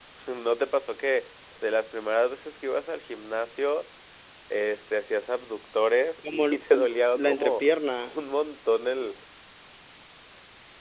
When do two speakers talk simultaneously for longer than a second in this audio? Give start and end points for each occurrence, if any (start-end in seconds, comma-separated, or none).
6.3-7.6